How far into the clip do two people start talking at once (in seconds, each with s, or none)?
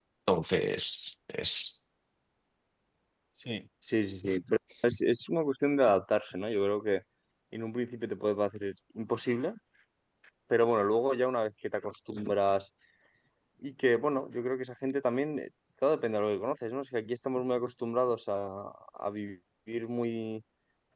none